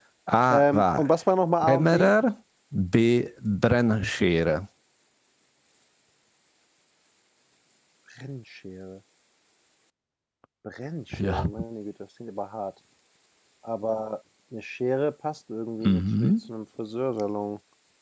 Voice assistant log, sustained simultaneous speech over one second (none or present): none